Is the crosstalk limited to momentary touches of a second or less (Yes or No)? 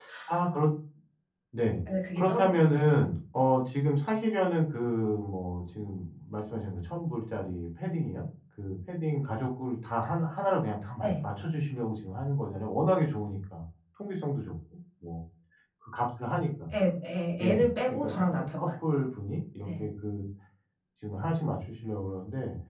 No